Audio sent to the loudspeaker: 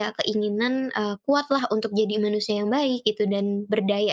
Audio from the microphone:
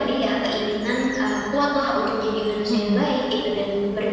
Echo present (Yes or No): Yes